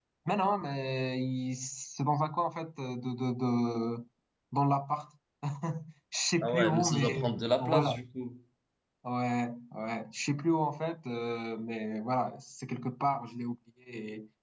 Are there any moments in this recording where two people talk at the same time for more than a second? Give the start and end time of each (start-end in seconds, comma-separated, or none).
6.4-8.0